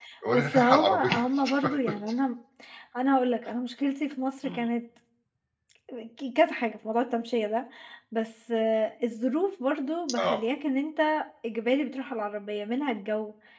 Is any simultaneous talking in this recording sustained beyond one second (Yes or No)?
Yes